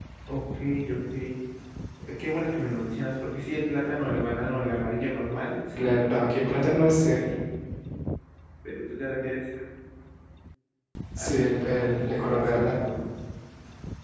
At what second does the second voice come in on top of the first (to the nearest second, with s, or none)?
6 s